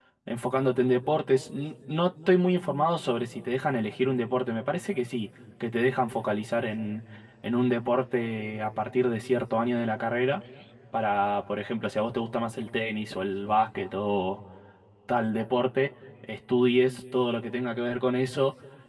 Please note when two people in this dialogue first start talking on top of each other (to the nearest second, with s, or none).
none